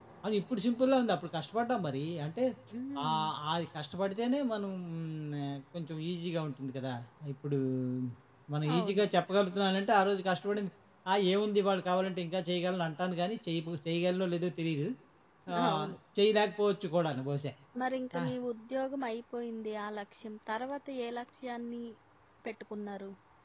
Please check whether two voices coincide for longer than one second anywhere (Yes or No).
No